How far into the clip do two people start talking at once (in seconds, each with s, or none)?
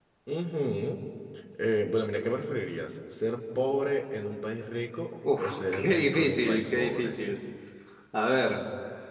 5.2 s